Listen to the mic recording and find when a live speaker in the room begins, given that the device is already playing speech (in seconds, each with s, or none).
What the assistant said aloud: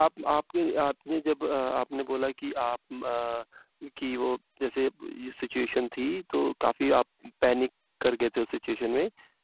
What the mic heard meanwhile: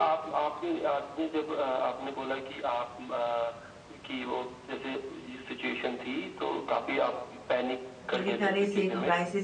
8.1 s